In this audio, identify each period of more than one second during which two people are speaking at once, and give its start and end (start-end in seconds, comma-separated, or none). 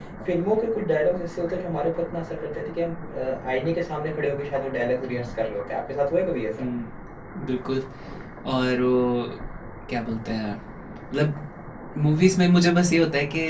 none